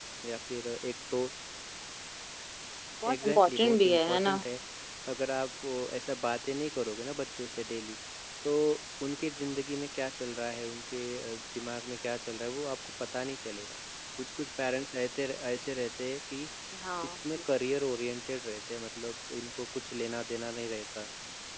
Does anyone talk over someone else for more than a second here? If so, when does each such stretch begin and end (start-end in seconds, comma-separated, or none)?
3.1-4.4